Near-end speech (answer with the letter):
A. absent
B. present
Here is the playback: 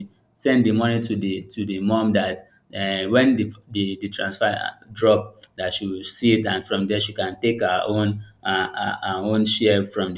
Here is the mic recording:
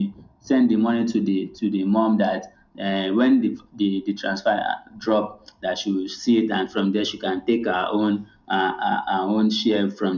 A